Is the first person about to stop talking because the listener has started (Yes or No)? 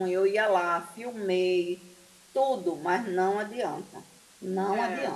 No